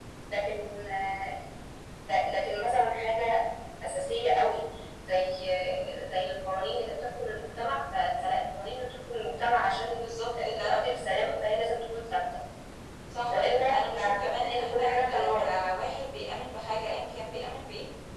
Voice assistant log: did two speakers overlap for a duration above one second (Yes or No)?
Yes